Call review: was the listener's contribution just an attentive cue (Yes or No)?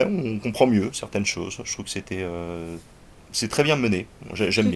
No